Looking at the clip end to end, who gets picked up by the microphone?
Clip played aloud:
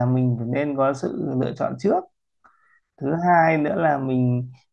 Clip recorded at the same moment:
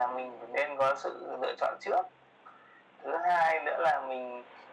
echo only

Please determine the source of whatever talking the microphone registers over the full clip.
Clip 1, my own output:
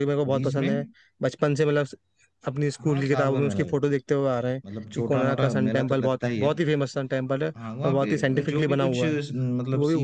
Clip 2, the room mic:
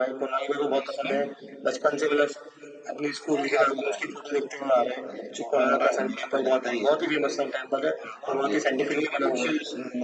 echo only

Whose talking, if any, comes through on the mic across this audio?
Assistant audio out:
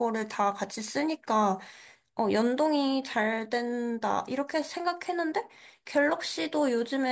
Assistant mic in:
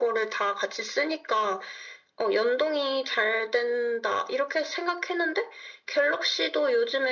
echo only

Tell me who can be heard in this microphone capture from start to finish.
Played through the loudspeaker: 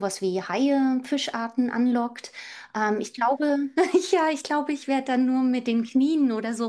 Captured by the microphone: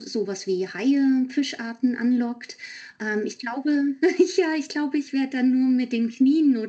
echo only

